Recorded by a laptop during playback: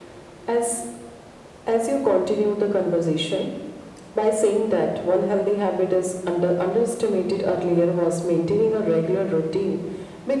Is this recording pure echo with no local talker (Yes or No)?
Yes